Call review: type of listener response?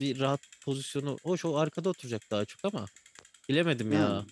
listening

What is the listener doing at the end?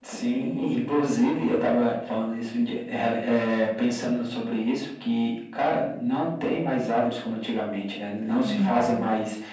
listening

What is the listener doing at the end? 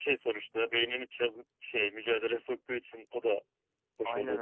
taking over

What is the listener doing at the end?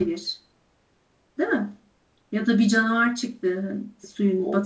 taking over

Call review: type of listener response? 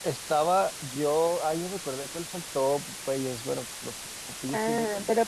taking over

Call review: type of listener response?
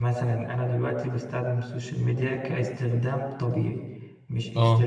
listening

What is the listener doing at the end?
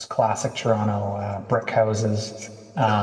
listening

